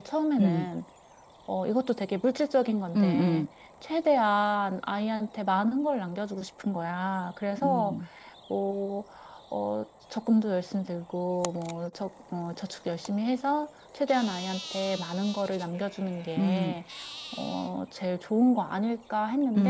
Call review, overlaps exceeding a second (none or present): none